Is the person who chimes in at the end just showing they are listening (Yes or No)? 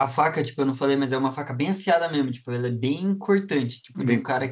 Yes